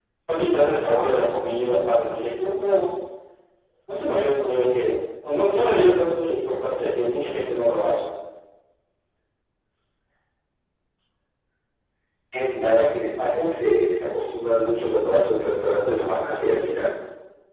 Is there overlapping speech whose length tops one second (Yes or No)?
No